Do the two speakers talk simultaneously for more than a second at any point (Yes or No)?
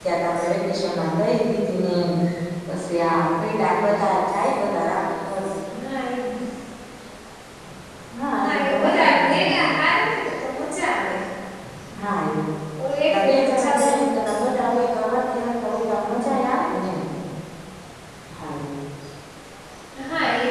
Yes